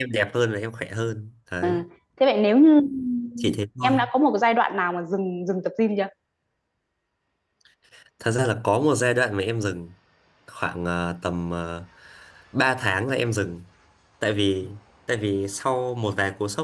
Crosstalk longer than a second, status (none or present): none